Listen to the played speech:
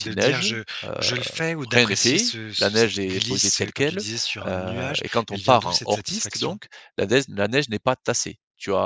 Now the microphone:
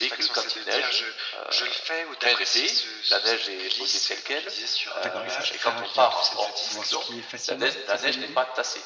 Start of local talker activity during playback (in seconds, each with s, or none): 5.0 s